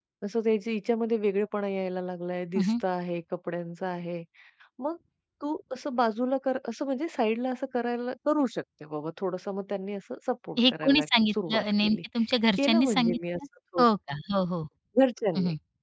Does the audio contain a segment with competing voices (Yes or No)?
Yes